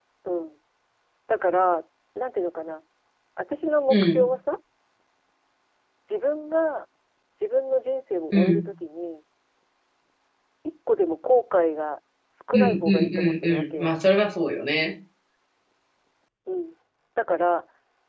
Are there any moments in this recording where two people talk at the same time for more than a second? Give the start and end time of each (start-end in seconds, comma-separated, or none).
12.5-13.9